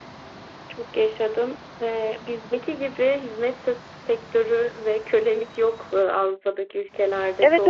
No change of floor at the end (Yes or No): No